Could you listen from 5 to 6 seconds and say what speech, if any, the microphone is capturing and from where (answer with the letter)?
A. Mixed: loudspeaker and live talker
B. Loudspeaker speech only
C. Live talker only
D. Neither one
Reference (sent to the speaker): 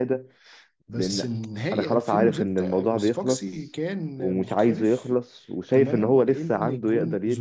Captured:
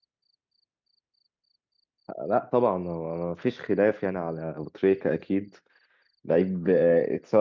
C